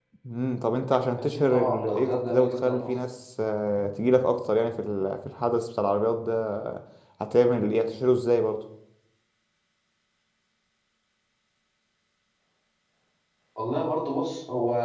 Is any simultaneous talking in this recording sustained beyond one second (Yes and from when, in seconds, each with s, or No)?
Yes, from 1.2 s